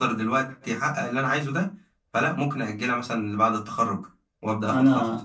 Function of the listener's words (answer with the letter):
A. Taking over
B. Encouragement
A